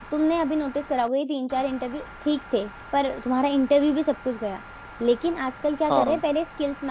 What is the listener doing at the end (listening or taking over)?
listening